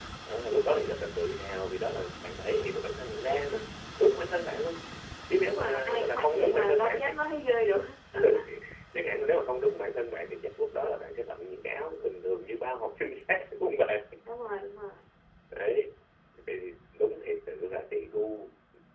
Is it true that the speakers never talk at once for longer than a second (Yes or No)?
No